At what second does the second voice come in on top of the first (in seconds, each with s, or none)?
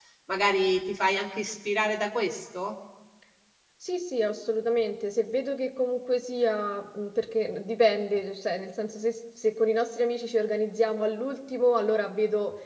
none